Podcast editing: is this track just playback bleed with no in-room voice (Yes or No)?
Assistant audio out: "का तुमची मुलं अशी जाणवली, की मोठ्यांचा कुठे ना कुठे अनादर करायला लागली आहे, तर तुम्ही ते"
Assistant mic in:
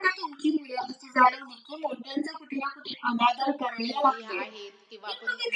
No